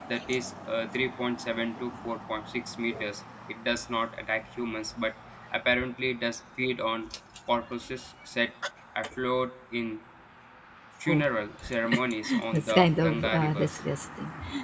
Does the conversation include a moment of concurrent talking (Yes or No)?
Yes